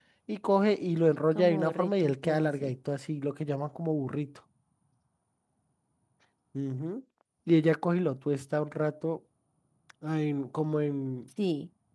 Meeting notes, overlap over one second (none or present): present